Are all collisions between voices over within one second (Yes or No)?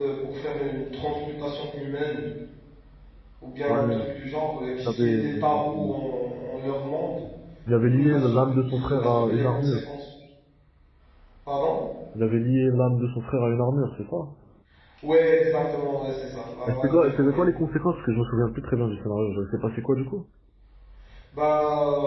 No